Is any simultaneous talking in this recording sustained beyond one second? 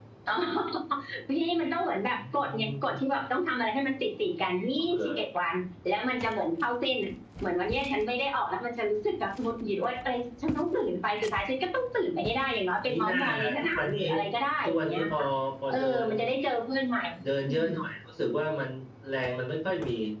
Yes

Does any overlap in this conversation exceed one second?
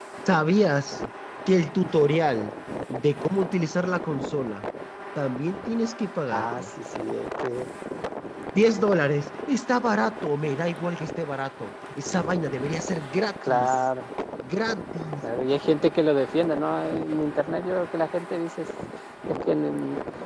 No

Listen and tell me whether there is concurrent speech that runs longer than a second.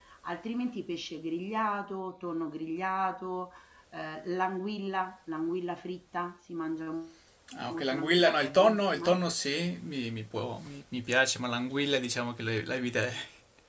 Yes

